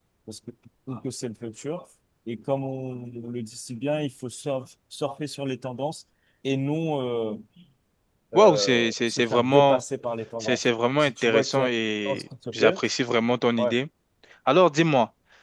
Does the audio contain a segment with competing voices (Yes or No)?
Yes